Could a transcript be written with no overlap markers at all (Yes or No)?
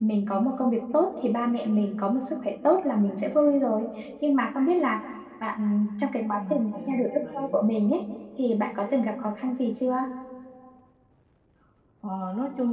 No